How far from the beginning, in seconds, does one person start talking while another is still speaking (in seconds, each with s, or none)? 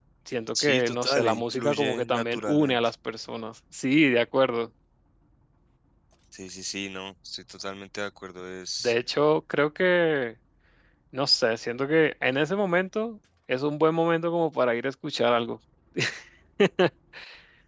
0.6 s